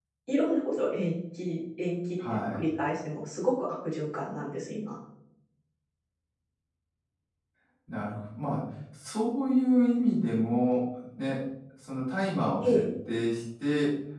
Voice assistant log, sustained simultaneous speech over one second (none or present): none